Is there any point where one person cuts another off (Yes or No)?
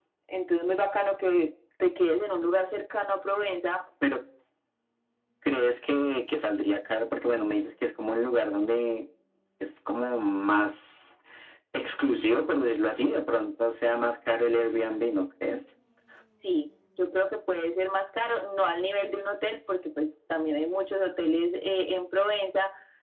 No